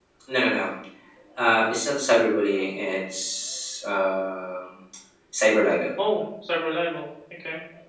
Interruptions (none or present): none